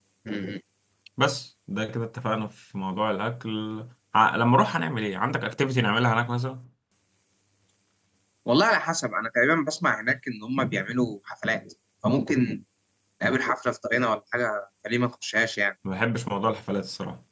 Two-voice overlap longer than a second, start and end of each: none

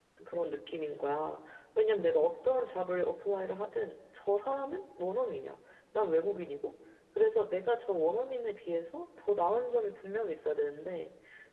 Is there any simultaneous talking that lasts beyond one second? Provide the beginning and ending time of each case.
none

